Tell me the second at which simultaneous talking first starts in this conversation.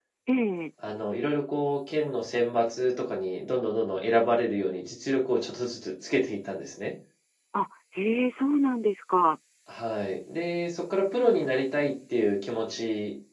none

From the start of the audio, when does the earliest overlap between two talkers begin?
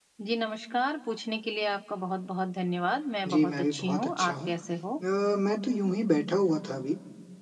3.2 s

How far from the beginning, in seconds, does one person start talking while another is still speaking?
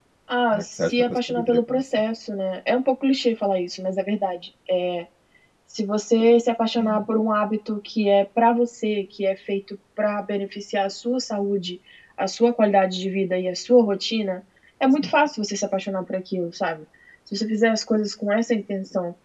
0.5 s

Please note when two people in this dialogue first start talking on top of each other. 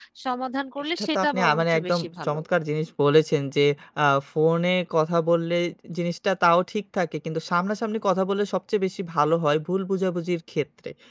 1.0 s

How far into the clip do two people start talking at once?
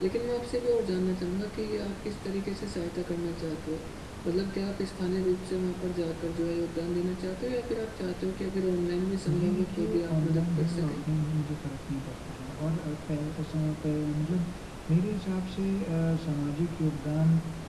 9.3 s

